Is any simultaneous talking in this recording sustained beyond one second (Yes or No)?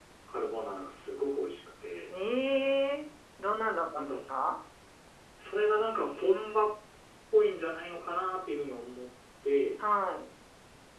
No